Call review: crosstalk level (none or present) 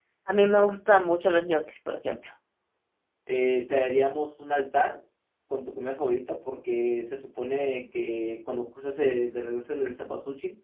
none